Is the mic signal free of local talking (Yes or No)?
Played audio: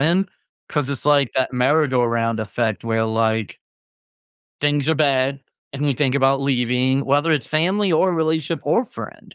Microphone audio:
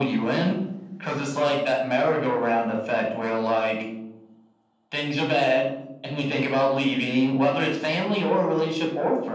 Yes